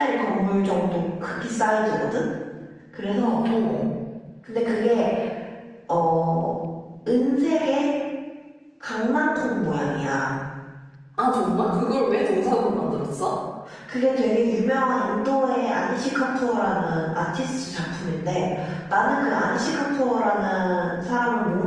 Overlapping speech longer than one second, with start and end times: none

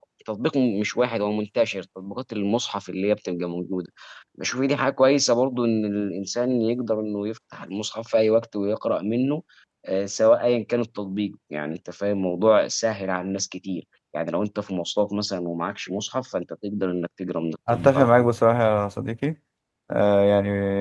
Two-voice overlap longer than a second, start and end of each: none

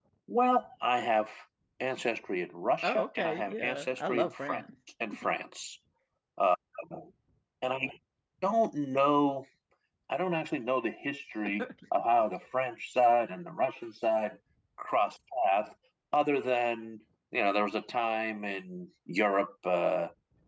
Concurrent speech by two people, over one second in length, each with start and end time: 2.8-4.6

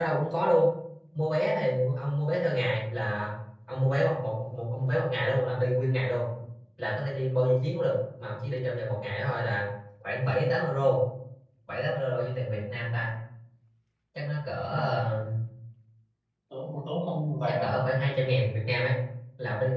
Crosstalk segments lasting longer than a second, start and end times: none

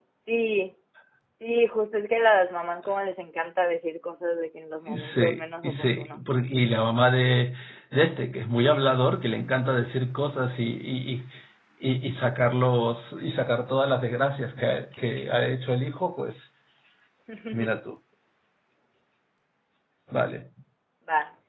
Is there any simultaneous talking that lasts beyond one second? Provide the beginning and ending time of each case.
4.9-6.2

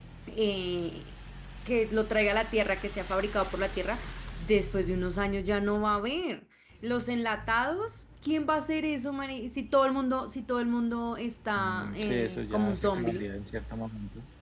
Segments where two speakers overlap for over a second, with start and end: 11.6-13.3

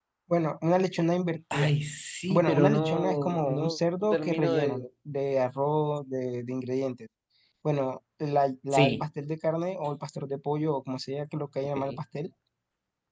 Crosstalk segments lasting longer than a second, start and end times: 2.3-4.8

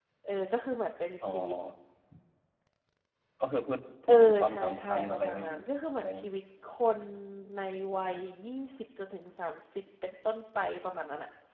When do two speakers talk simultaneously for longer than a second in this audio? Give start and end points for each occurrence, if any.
4.1-5.5

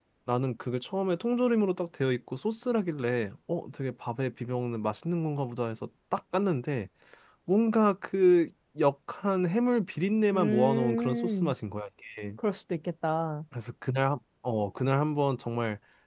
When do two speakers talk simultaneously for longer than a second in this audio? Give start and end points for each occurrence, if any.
10.3-11.5

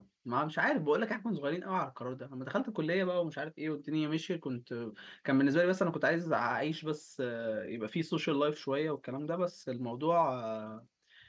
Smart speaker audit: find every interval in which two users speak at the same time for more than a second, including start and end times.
none

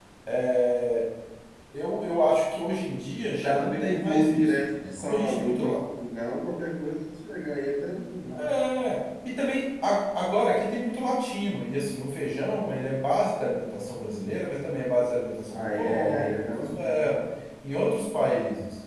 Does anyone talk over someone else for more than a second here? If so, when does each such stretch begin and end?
3.4-5.8, 15.5-17.2

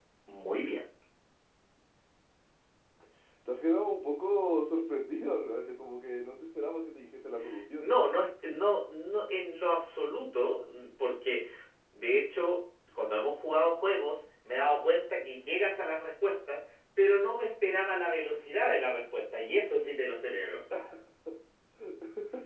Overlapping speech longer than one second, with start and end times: none

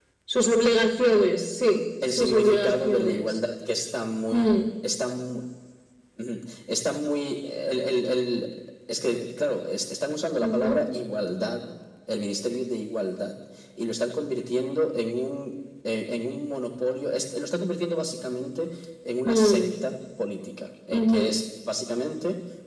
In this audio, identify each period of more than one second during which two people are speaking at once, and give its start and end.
2.0-3.4

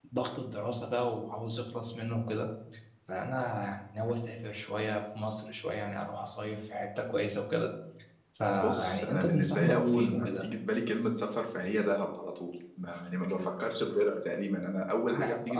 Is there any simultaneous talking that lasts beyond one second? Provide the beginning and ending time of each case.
8.6-10.4

